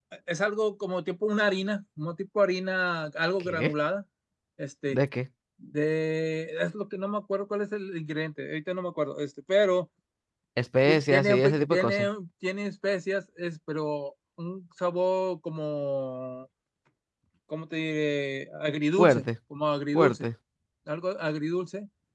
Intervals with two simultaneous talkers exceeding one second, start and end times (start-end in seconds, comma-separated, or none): 10.8-12.1